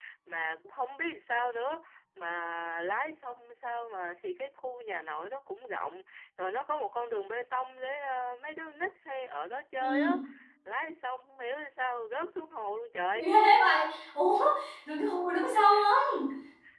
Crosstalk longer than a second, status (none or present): none